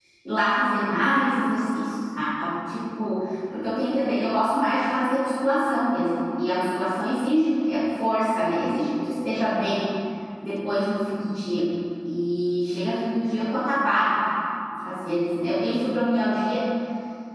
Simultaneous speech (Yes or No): No